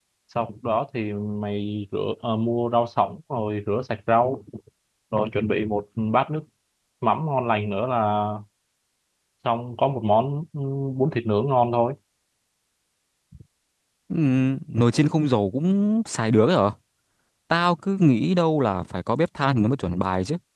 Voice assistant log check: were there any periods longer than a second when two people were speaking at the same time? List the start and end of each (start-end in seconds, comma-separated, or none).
none